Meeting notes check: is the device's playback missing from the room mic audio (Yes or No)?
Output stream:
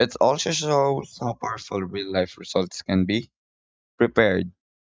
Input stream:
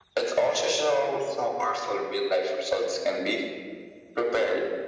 No